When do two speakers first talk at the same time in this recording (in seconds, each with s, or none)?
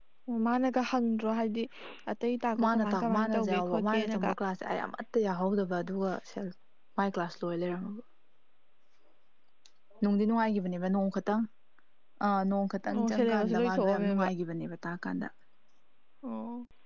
2.6 s